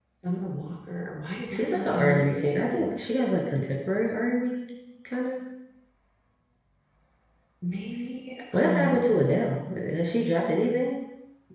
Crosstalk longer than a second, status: present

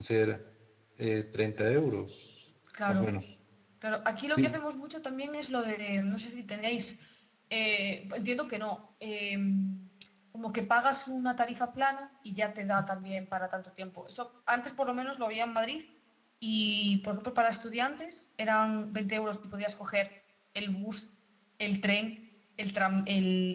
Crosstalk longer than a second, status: none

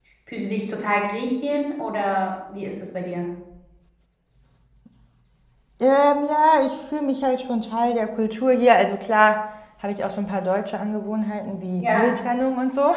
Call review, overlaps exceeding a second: none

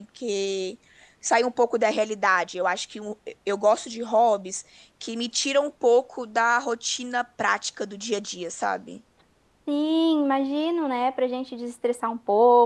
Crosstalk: none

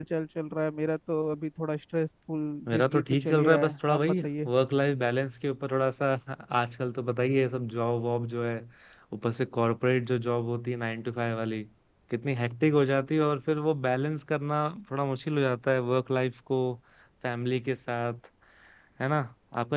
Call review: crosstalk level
present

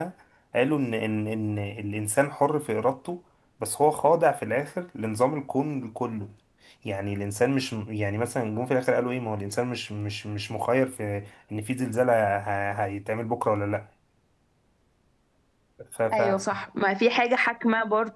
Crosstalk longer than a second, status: none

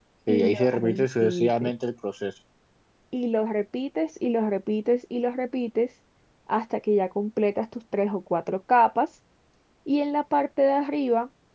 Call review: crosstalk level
present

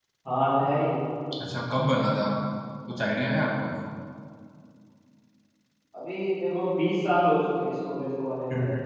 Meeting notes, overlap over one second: none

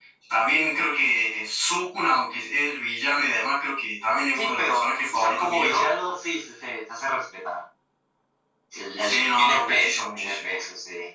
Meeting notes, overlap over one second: present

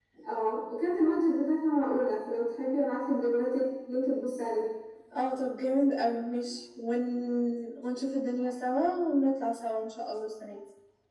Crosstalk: none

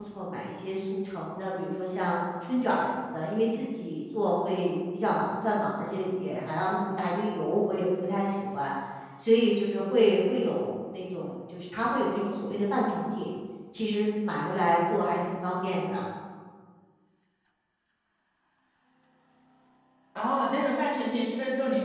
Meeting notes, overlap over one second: none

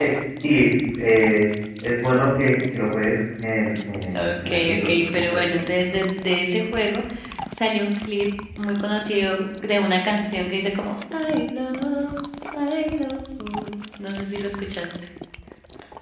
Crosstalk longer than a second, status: present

